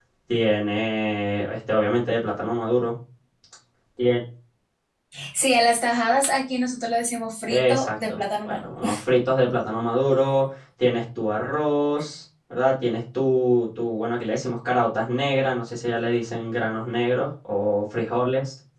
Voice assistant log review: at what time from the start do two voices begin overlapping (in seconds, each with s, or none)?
7.5 s